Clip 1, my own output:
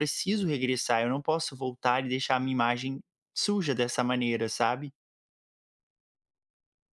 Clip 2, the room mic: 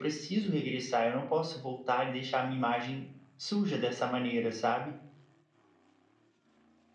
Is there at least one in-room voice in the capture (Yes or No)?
No